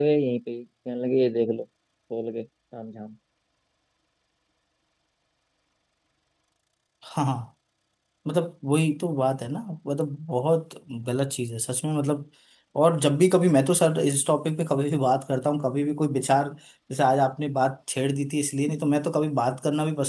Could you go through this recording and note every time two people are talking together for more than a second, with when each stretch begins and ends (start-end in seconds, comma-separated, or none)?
none